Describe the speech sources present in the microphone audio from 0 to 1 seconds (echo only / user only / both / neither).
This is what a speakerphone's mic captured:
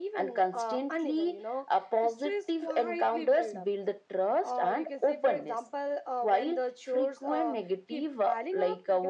echo only